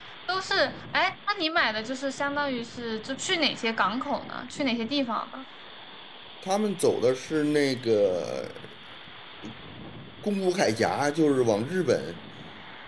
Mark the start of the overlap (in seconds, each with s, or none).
none